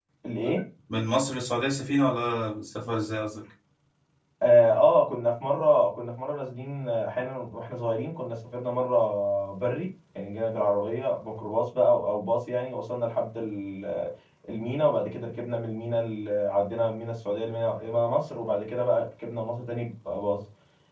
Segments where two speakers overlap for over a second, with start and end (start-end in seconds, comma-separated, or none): none